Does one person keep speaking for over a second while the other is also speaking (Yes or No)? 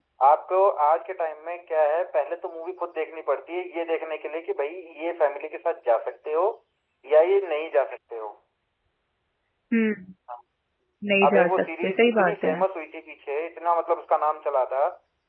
Yes